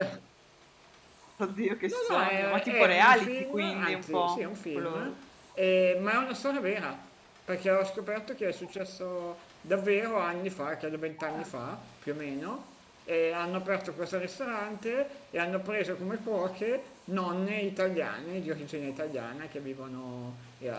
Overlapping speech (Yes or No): Yes